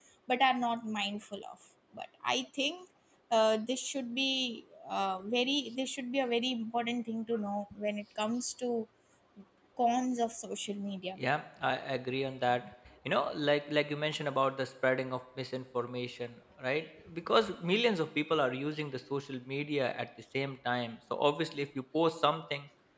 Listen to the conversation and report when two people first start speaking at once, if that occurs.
none

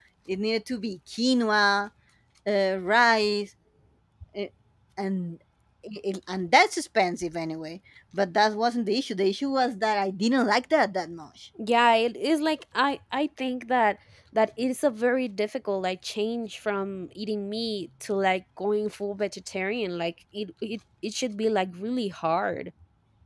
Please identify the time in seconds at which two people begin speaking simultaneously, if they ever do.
none

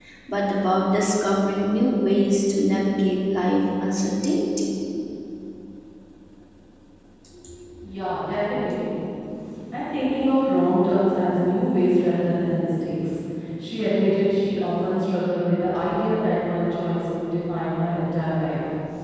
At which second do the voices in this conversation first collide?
none

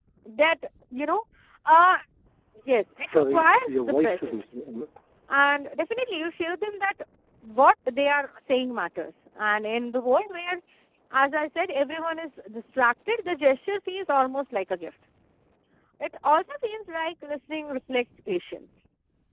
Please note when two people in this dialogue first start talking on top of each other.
3.1 s

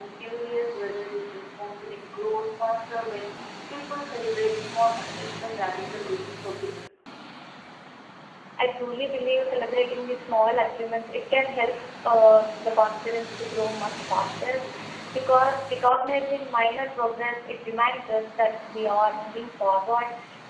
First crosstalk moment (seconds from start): none

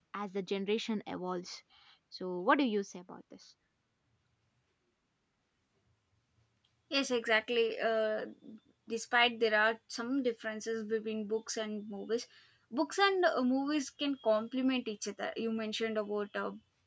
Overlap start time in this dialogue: none

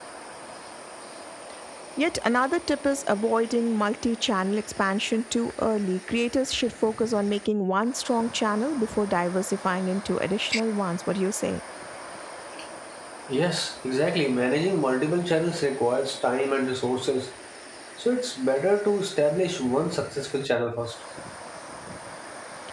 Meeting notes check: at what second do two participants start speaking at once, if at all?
none

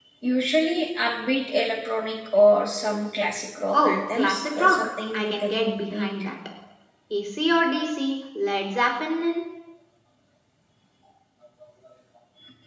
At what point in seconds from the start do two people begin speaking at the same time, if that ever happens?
3.7 s

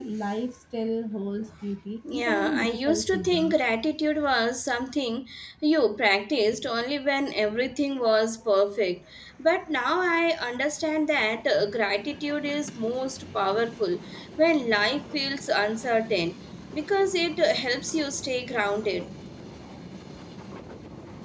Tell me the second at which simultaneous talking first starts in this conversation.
2.0 s

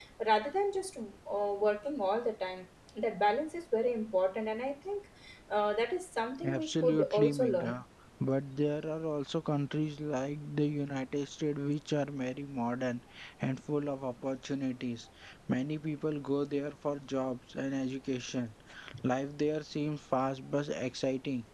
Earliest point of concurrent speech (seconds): 6.4 s

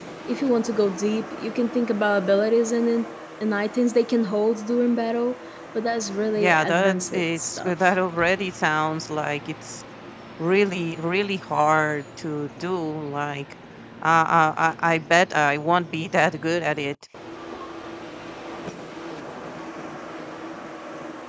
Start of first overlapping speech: 6.4 s

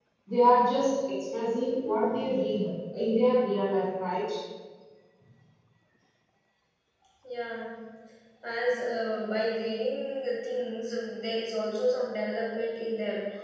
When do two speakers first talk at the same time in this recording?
none

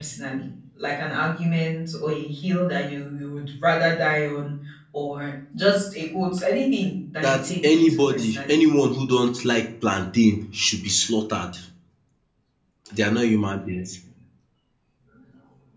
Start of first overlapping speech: 7.2 s

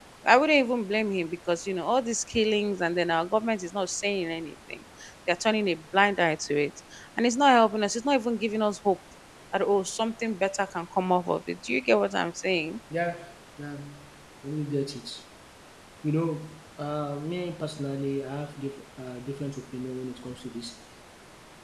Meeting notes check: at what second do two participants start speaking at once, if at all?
none

